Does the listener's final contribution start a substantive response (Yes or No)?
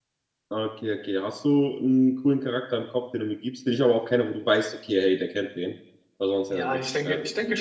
Yes